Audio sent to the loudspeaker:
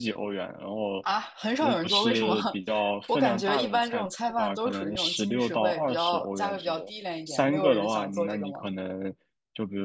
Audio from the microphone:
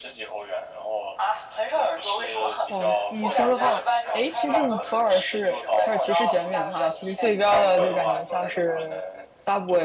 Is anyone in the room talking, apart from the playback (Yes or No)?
Yes